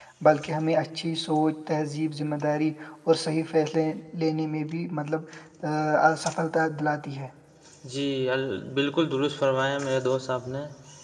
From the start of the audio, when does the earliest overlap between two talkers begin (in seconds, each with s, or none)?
none